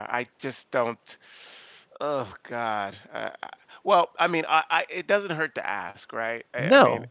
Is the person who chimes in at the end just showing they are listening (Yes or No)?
No